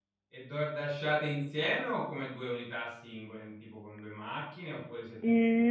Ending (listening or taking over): taking over